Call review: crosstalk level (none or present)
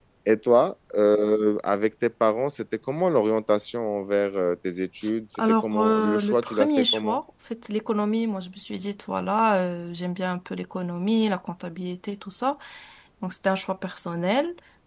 present